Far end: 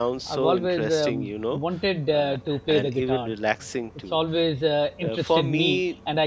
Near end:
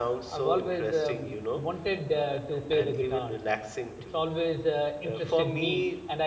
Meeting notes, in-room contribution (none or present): none